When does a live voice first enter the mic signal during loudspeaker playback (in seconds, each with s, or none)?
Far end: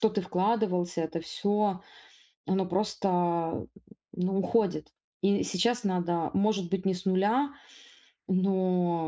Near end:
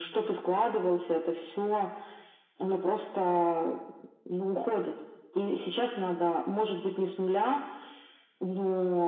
none